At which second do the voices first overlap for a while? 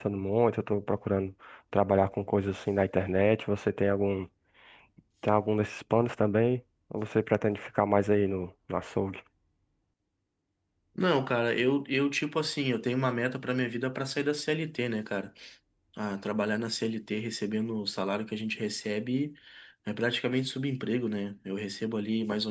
none

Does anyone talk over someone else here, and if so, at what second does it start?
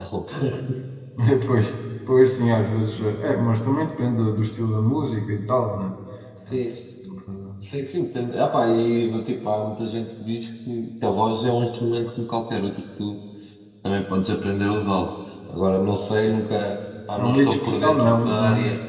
17.2 s

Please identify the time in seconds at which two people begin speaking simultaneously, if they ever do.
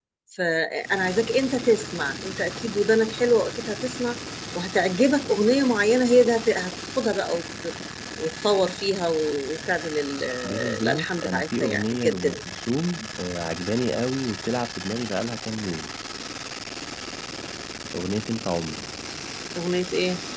10.4 s

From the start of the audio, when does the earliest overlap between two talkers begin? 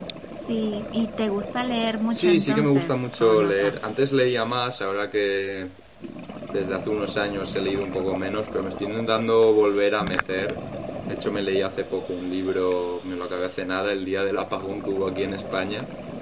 2.1 s

